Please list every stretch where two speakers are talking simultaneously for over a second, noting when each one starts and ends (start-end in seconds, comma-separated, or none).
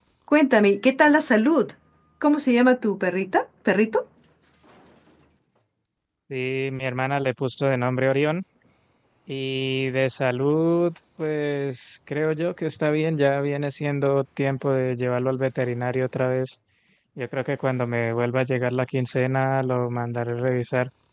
none